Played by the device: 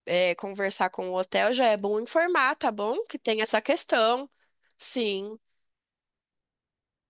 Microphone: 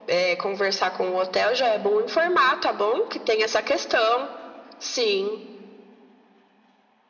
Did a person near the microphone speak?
No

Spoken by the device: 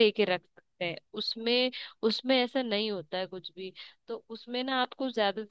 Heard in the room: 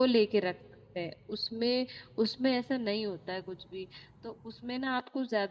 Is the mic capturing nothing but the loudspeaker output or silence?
Yes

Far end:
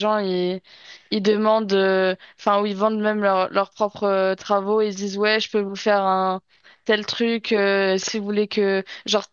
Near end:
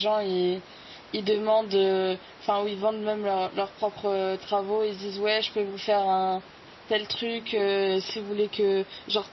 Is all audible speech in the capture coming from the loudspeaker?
Yes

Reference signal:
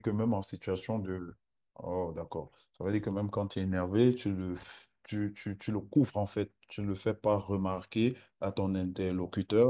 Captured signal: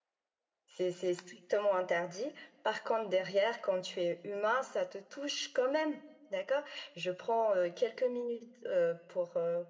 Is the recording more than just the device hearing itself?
Yes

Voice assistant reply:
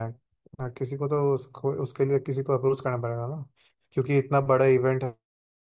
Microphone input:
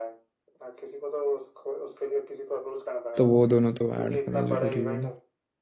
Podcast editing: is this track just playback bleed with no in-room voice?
No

